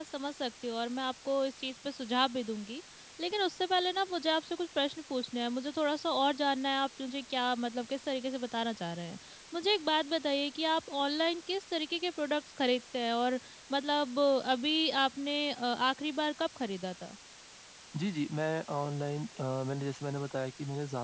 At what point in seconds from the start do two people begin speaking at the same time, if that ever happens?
none

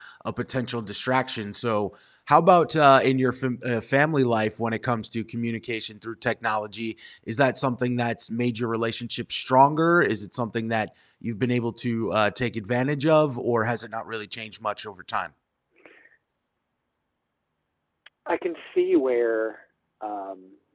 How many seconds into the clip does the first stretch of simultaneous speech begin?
none

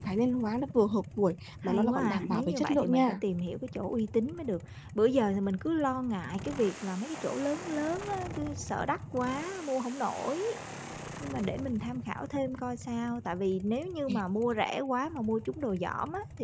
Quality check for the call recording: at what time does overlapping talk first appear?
2 s

